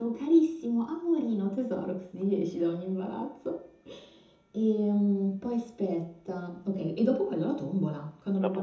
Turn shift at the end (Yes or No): No